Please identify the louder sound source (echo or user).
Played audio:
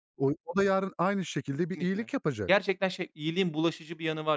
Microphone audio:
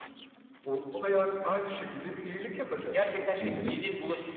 user